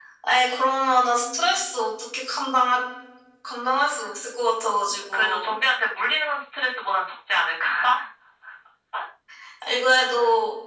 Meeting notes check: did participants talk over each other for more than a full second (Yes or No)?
No